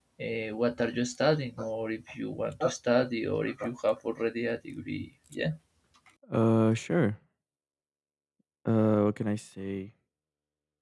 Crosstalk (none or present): none